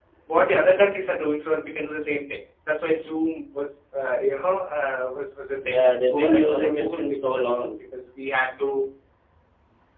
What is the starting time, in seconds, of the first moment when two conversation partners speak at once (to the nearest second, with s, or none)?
6 s